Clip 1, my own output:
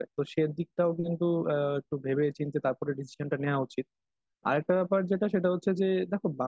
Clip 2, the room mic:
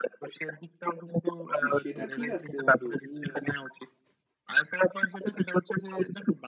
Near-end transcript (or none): না সেটা ঠিক আছে বন্ধু তুমি